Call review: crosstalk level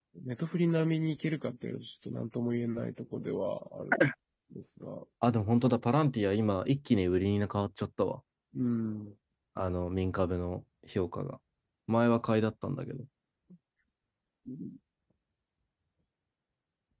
none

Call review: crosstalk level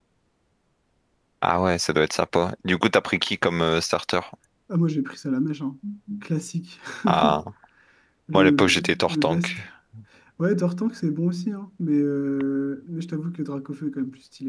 present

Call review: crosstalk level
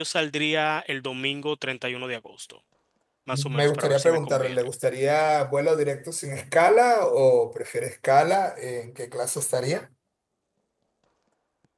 present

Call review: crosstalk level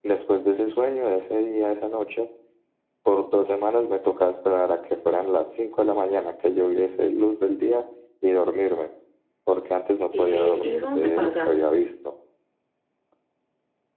present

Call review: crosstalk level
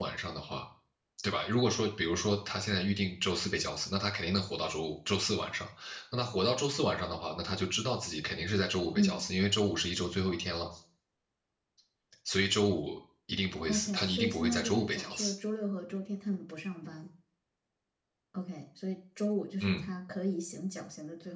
present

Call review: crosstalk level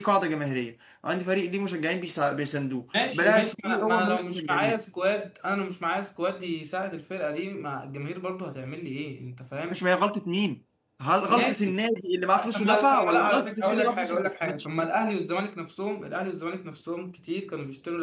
present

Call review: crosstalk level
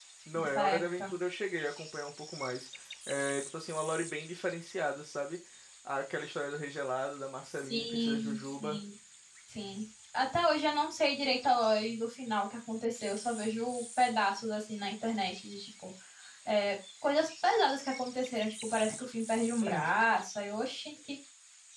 present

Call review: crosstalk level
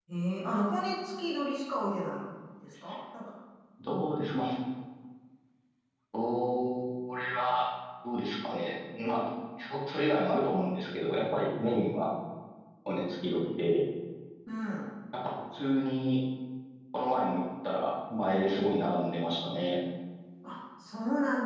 none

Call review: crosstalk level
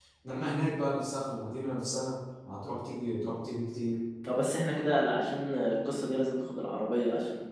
none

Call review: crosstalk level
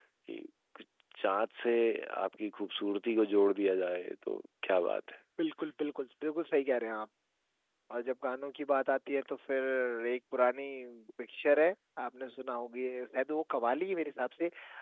none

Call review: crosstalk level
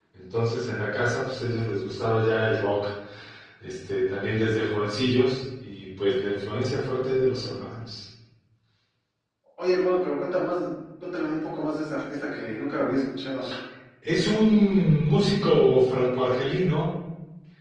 none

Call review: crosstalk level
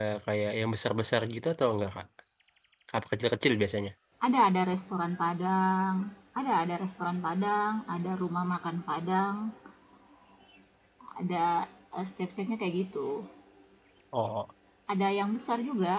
none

